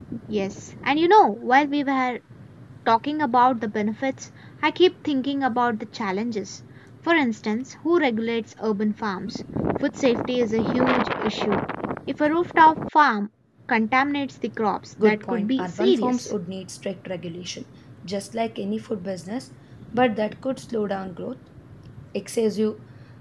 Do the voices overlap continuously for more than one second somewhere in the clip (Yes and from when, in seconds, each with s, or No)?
Yes, from 15.0 s